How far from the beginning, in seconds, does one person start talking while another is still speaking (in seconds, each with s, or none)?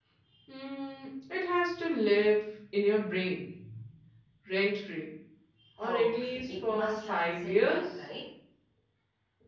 5.8 s